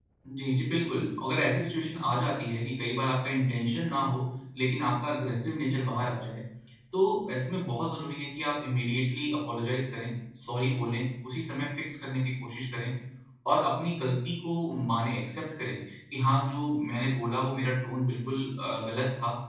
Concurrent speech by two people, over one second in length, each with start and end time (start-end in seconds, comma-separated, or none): none